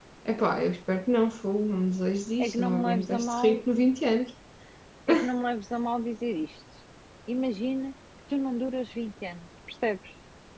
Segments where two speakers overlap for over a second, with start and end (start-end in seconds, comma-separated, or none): 2.4-3.6